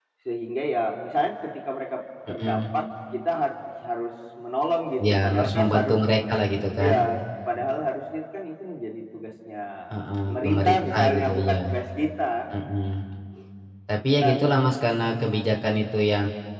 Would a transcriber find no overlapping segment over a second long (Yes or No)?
No